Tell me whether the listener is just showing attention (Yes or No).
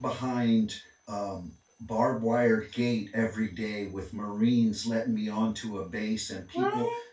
Yes